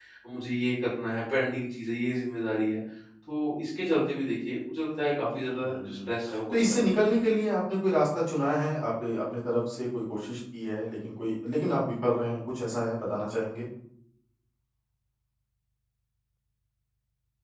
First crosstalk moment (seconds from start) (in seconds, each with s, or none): 5.5 s